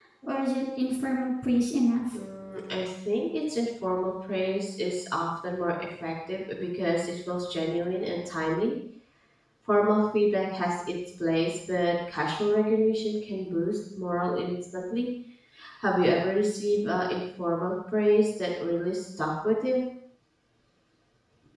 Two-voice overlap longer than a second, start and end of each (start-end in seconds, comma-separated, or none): none